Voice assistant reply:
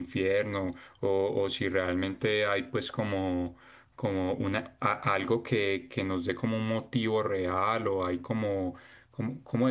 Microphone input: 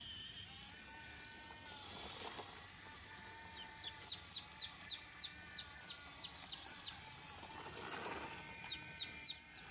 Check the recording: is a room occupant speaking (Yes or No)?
No